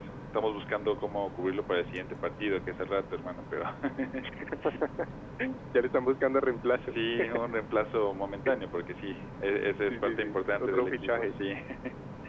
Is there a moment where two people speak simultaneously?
Yes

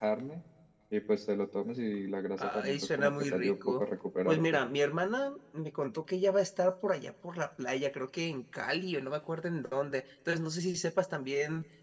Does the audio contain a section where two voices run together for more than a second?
Yes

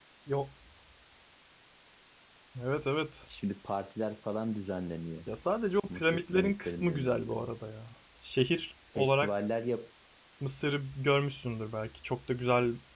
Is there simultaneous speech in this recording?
Yes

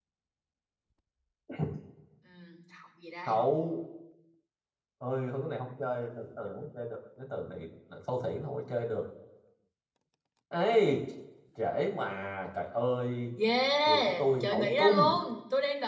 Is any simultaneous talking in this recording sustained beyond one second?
Yes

